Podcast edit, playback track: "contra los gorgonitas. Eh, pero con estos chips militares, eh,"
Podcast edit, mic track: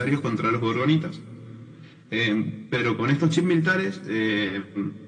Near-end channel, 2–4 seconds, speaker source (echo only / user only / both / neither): echo only